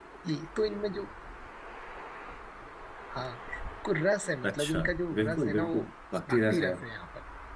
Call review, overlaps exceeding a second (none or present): present